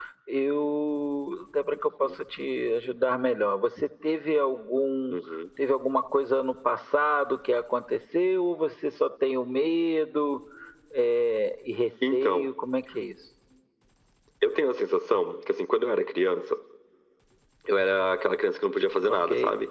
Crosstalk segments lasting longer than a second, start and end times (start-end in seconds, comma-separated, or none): none